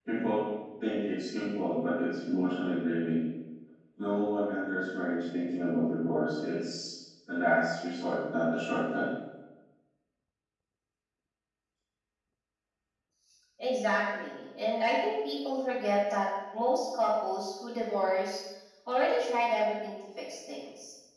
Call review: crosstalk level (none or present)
none